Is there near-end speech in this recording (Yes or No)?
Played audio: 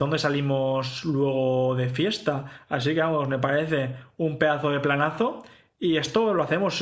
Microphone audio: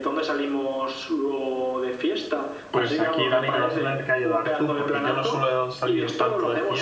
Yes